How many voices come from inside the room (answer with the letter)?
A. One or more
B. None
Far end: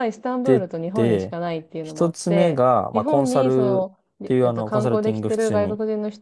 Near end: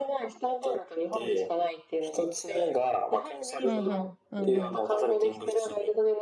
A